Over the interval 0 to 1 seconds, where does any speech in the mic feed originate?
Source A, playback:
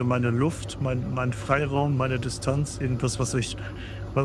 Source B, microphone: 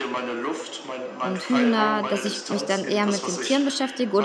echo only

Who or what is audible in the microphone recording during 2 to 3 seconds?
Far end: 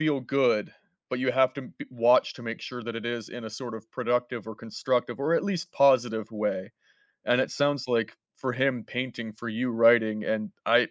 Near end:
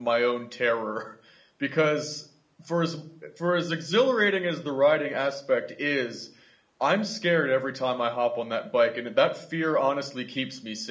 user only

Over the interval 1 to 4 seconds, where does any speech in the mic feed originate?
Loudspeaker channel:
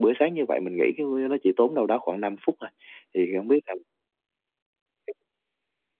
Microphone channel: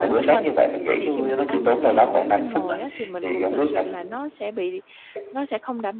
both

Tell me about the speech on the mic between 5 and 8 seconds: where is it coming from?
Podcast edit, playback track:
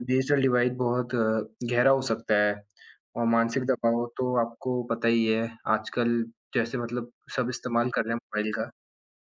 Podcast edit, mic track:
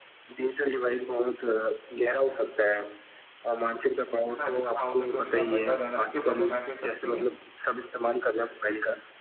both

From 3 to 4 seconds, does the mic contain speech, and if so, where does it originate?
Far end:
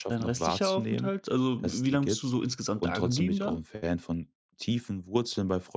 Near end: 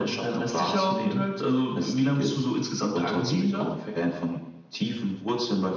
echo only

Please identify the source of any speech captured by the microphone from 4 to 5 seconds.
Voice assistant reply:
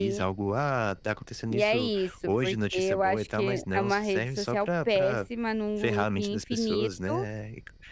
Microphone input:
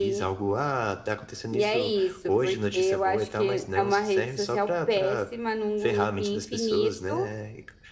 echo only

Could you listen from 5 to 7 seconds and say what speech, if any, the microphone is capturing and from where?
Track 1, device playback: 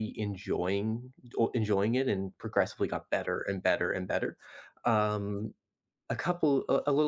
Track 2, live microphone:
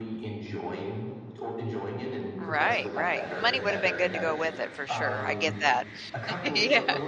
both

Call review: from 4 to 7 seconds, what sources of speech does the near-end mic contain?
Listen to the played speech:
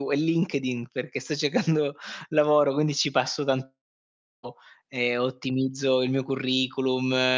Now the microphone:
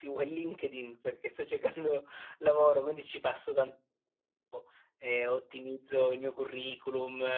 echo only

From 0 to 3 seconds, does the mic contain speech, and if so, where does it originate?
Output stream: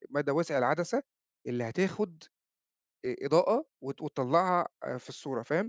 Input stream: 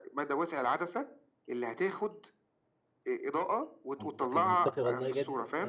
echo only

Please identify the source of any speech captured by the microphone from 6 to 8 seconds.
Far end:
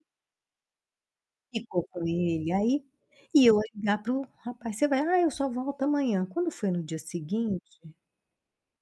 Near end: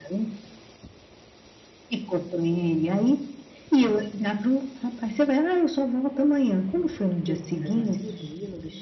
both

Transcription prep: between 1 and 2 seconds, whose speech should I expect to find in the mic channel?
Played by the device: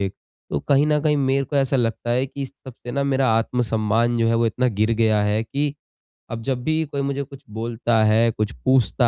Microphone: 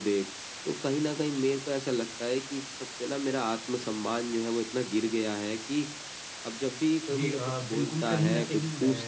echo only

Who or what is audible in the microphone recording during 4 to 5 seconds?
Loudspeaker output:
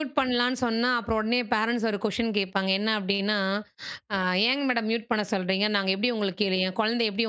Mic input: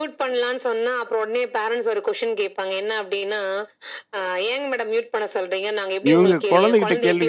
echo only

